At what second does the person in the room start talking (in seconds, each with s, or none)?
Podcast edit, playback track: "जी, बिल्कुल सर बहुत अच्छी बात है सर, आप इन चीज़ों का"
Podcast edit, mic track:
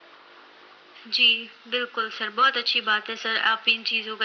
none